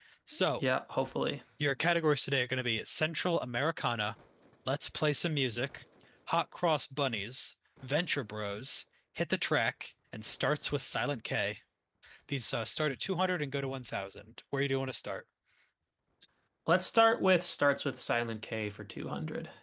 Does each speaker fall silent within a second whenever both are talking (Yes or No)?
Yes